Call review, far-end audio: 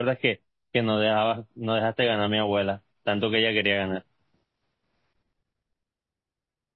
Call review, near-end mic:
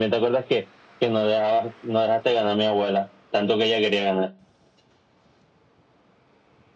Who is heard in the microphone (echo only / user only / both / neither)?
echo only